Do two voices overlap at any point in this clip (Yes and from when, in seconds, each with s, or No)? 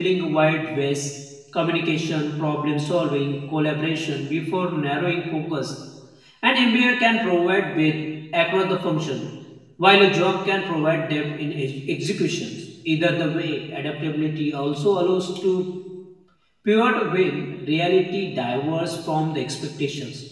No